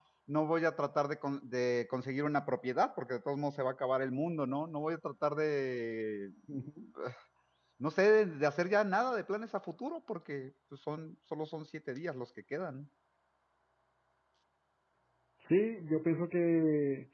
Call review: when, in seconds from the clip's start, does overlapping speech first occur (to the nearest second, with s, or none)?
none